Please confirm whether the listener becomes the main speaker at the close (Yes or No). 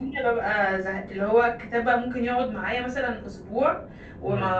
No